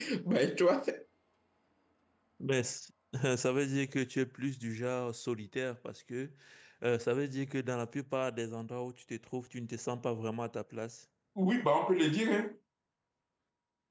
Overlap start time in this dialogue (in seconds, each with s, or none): none